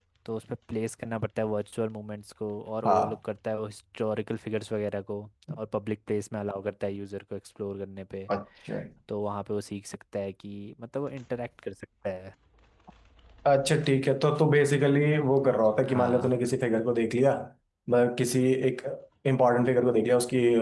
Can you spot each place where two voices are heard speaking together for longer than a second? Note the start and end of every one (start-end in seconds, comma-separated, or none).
none